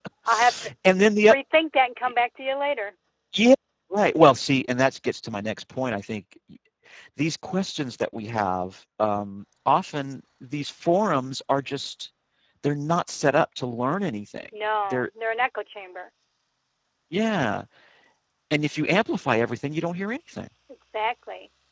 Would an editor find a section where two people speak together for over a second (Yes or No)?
No